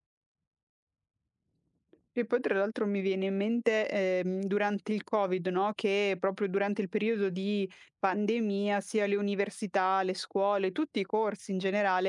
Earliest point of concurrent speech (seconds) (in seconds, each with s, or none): none